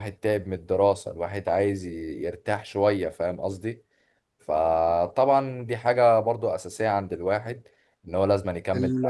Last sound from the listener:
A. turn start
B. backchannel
A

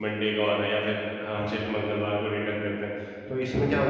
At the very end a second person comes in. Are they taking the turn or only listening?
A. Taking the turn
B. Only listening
B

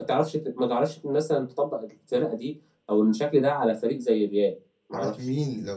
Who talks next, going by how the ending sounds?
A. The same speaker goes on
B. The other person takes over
B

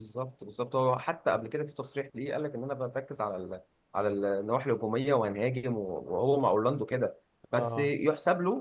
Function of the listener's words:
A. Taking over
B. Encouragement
B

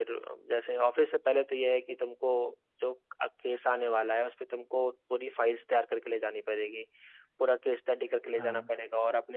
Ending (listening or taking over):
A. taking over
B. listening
B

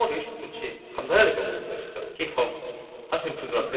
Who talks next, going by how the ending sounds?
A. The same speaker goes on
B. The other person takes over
B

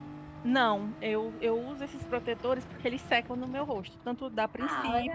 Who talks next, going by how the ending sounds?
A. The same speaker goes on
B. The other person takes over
A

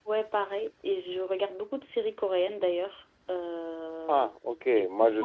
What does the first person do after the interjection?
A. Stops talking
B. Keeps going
A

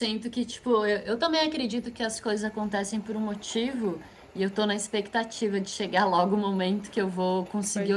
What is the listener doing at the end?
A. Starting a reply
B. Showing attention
B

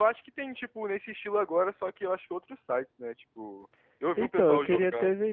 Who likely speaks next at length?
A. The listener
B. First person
A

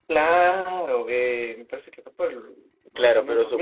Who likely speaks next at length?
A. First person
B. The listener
B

